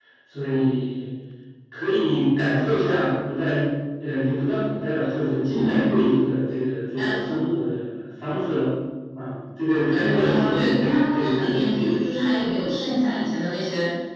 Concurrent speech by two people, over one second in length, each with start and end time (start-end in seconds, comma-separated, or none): 9.9-11.9